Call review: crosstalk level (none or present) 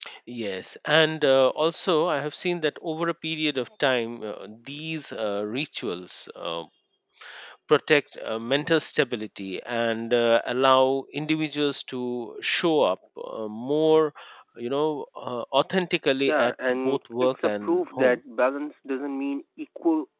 present